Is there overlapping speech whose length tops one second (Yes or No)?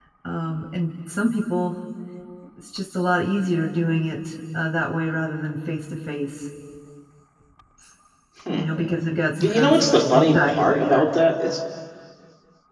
Yes